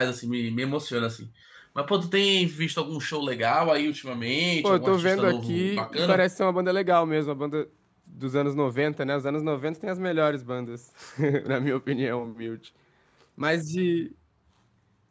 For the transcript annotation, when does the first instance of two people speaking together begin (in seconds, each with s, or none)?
4.6 s